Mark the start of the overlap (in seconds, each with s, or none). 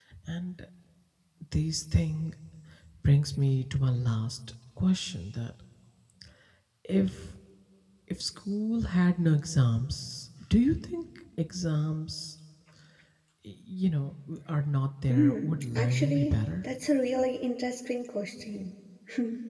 15.1 s